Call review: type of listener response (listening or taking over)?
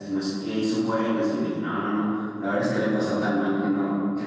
listening